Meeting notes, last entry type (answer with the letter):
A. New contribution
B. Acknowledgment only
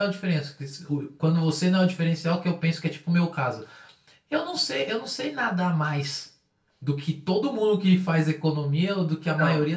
B